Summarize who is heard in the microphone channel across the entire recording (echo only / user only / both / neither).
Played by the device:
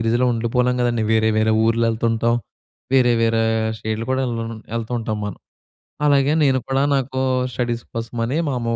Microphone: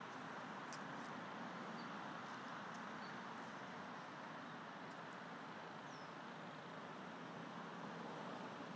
neither